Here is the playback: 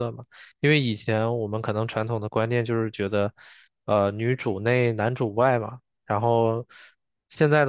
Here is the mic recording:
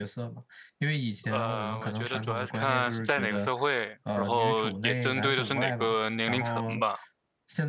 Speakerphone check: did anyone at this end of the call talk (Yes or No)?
Yes